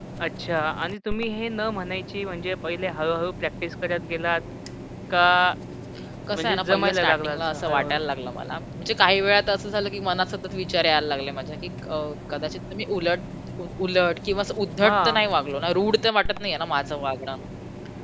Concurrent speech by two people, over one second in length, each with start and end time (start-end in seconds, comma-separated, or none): 6.4-8.0